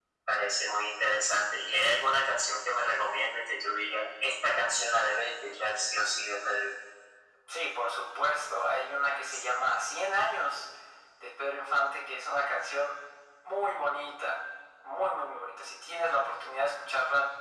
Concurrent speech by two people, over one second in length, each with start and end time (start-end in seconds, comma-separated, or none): none